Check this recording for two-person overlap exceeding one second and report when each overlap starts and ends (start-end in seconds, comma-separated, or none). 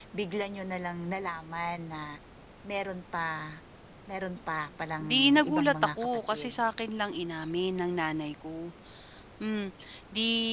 5.0-6.5